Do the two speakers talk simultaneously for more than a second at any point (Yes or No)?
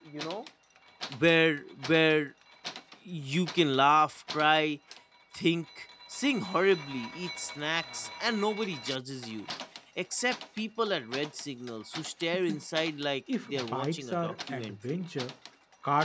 Yes